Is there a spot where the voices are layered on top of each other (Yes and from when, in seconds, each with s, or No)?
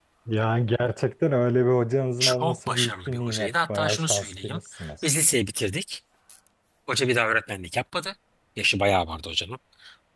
Yes, from 2.2 s